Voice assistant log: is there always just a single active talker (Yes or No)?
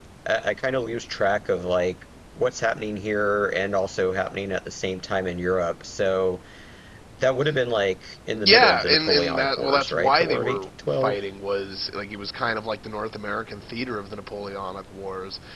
No